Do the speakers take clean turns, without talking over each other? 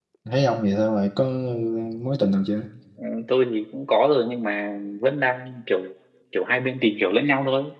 Yes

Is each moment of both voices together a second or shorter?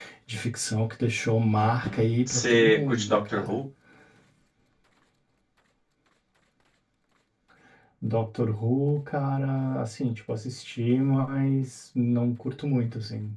No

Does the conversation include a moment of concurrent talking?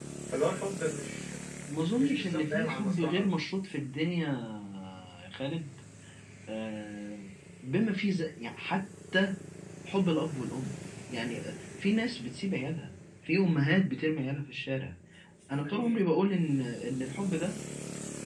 Yes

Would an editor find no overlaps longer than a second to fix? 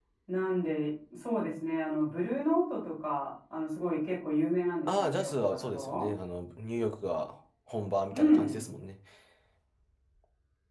No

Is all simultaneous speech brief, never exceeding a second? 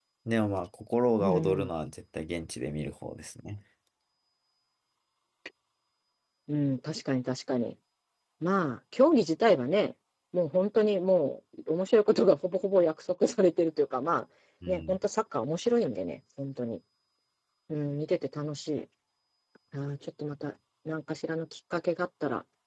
Yes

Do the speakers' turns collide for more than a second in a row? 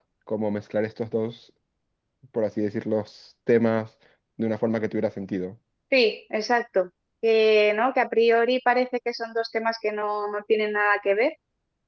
No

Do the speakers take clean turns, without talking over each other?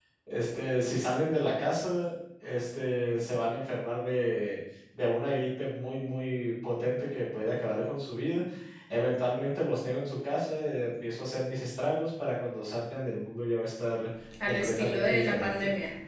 No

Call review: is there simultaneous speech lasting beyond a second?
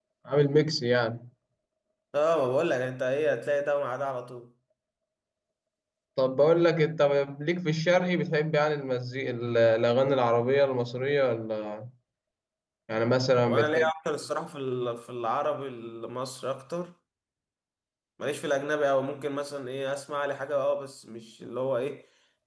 No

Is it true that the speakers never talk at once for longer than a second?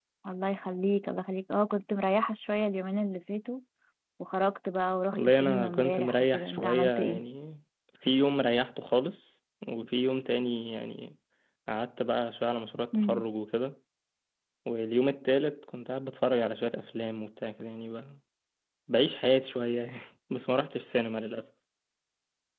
No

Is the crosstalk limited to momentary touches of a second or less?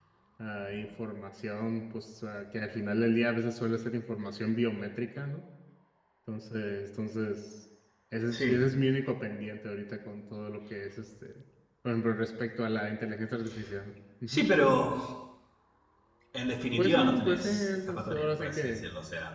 No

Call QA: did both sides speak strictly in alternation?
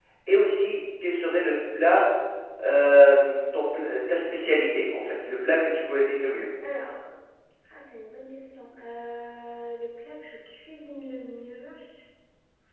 Yes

